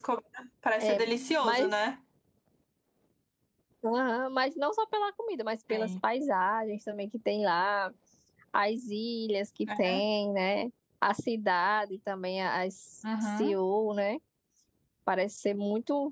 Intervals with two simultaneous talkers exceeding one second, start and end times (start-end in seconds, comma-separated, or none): none